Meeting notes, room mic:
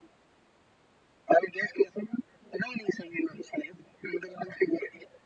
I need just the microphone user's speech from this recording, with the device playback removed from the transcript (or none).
none